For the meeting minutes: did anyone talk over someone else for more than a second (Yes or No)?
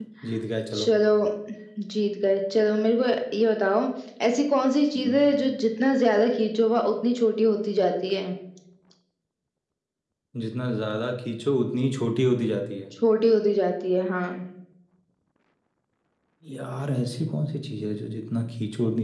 No